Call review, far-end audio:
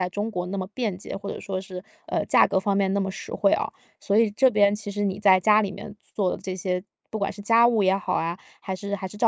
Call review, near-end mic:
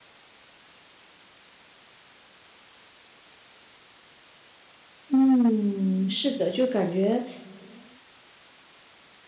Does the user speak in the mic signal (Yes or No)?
Yes